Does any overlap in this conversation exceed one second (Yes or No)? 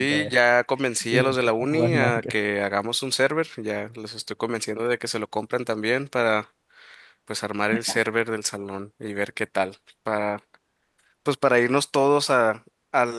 Yes